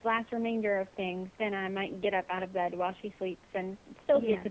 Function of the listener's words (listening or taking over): listening